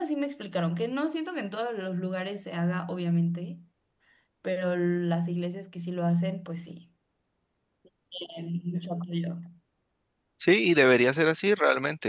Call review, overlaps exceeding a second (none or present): none